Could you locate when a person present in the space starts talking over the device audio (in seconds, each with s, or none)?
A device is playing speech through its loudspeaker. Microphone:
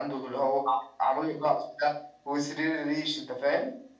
none